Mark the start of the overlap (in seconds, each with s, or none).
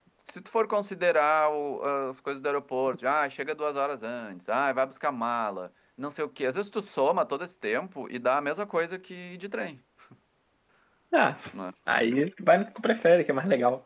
none